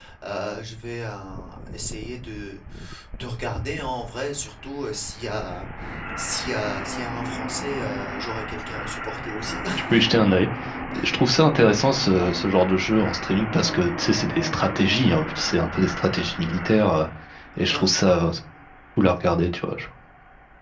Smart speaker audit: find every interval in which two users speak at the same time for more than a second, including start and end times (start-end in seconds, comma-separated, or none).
none